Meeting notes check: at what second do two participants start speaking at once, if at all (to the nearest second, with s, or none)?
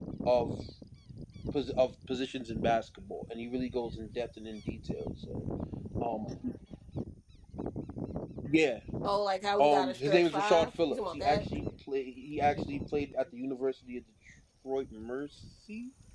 10 s